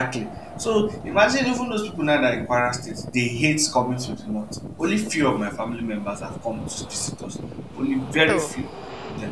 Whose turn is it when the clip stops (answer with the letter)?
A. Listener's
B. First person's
B